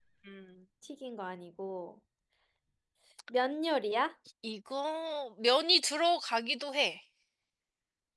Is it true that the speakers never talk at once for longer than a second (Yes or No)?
Yes